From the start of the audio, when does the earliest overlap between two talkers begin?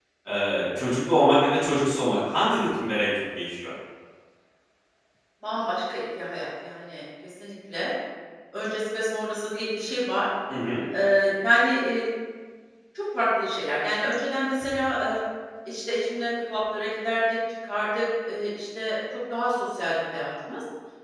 none

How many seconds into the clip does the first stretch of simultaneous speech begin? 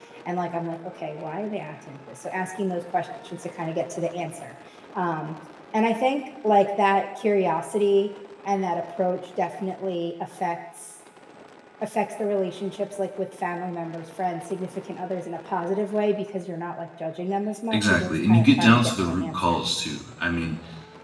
17.7 s

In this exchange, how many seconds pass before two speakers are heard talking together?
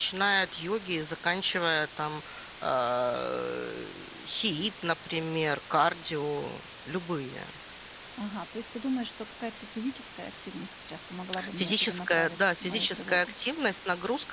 11.3 s

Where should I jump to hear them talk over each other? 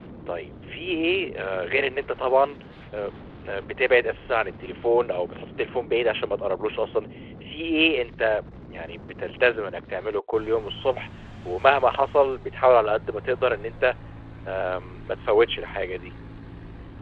none

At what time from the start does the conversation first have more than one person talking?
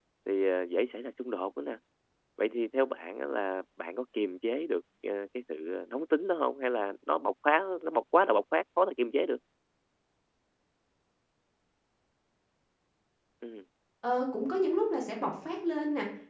none

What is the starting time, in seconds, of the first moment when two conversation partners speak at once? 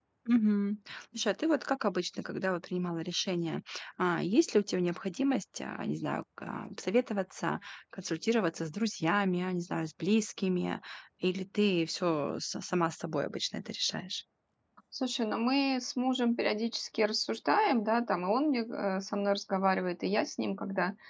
none

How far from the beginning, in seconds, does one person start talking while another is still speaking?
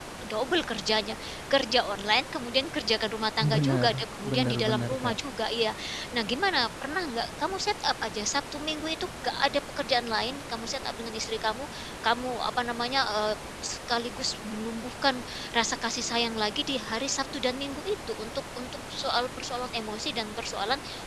3.4 s

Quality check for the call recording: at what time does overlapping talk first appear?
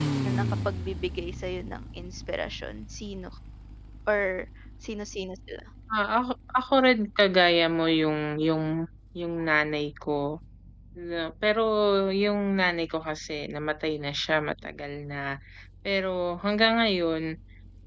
none

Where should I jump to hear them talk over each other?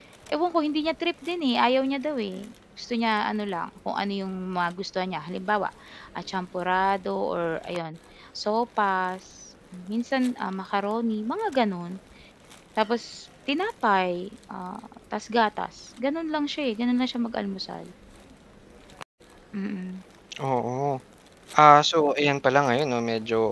none

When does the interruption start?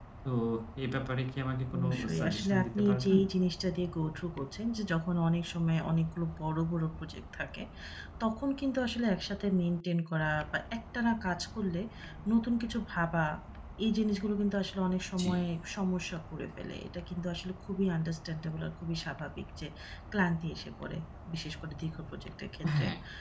1.8 s

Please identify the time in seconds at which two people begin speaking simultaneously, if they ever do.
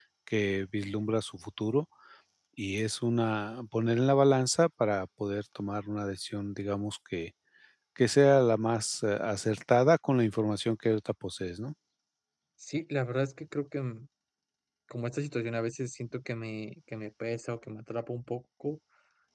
none

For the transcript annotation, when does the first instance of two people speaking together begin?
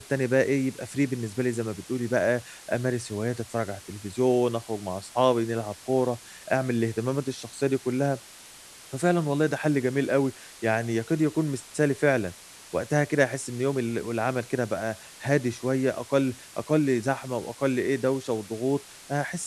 none

